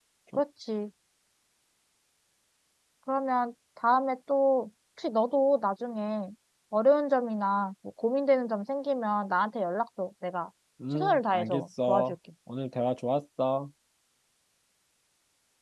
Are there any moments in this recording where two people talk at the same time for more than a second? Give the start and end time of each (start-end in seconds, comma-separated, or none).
10.9-12.1